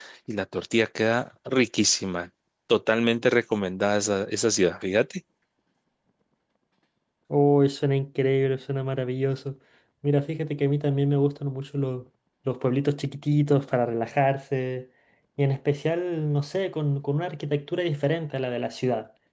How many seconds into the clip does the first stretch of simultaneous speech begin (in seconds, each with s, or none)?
none